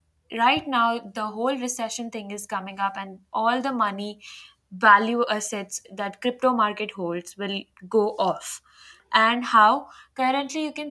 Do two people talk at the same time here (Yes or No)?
No